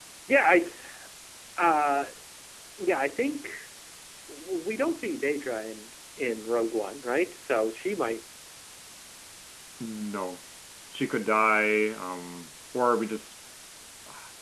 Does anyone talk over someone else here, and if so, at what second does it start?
none

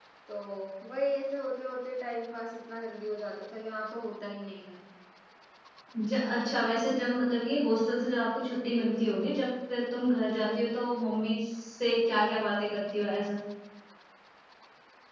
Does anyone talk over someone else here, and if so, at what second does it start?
none

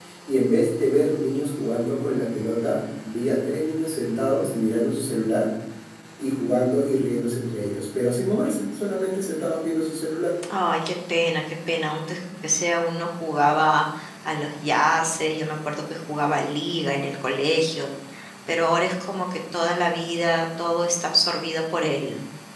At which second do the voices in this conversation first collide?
none

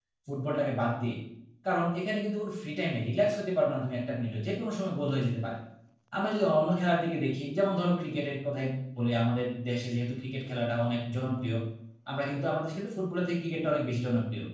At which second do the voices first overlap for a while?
none

